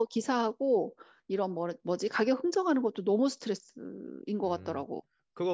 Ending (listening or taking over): taking over